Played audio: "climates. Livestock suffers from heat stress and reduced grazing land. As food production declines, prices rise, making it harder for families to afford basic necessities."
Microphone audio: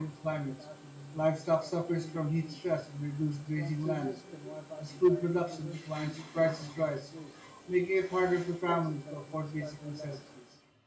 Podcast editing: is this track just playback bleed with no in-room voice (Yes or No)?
No